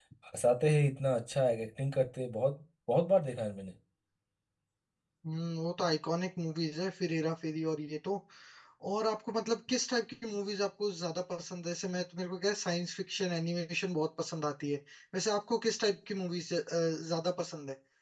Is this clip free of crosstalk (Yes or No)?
Yes